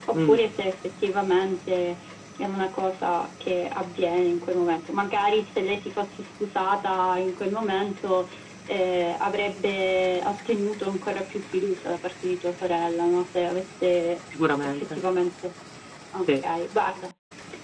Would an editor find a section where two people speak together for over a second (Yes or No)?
No